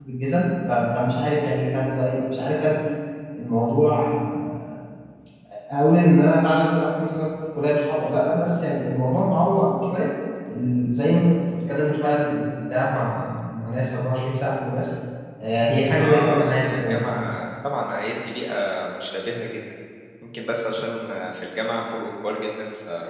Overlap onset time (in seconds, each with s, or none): 15.9 s